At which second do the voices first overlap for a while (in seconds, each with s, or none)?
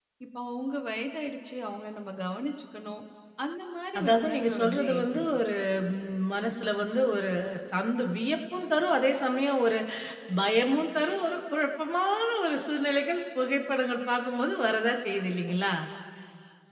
4.0 s